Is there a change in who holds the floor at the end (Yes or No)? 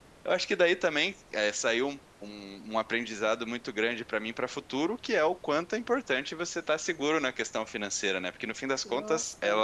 No